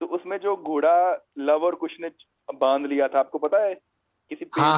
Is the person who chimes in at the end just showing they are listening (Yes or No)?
No